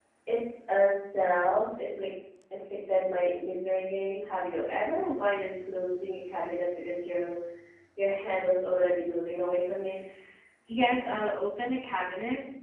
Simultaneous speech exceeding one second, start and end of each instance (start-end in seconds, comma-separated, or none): none